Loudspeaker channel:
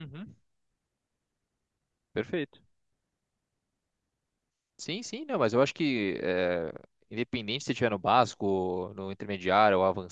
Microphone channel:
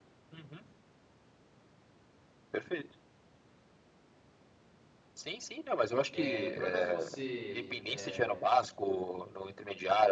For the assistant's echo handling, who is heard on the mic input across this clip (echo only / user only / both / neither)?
both